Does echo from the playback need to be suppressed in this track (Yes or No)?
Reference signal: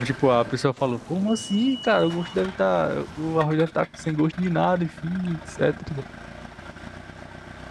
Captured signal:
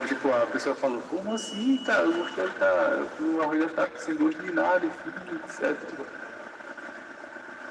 Yes